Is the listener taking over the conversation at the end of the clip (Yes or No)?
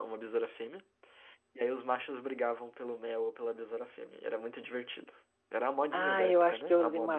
Yes